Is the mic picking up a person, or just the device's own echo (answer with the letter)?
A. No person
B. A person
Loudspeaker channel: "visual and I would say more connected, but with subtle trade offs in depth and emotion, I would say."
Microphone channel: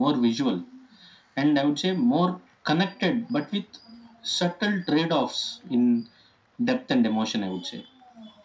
A